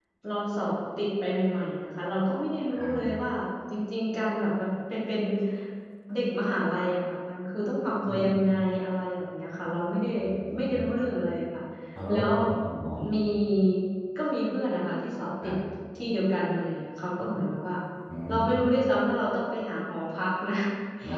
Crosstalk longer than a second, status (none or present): none